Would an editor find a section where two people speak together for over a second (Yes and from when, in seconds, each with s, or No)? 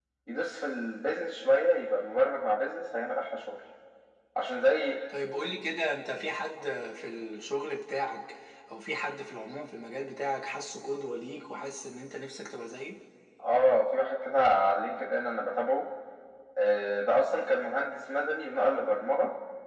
No